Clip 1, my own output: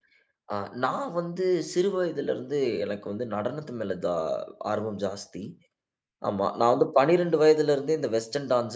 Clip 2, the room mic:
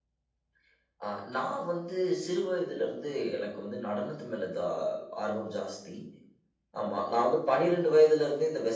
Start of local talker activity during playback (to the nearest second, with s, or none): none